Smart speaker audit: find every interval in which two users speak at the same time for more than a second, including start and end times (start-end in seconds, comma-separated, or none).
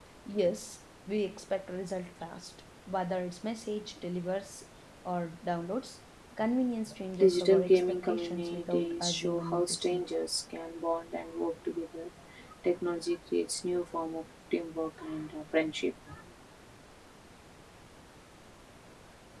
7.2-10.0